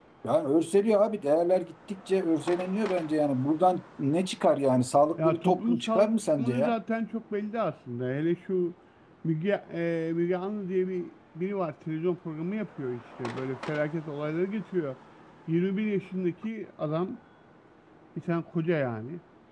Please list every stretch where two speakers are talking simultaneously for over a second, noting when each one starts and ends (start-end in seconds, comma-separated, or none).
5.2-6.7